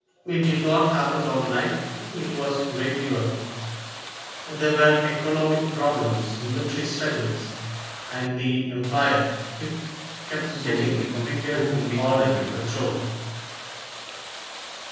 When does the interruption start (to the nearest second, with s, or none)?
11 s